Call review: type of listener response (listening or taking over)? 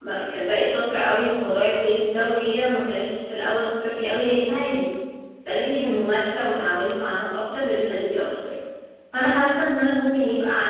listening